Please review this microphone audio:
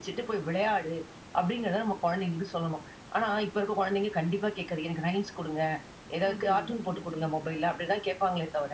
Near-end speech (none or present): present